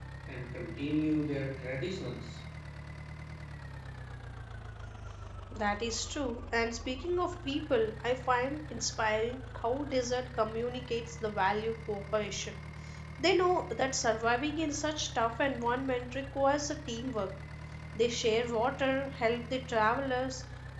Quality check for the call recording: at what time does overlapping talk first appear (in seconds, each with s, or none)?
none